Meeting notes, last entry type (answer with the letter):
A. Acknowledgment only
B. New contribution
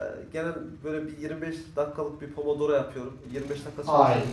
A